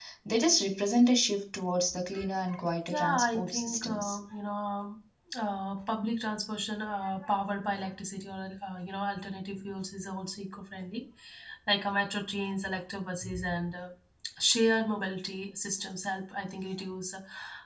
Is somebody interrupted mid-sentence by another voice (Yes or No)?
Yes